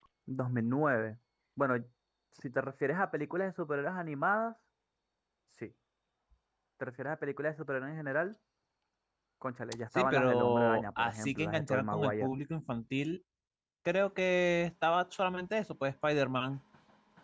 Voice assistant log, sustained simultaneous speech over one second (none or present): present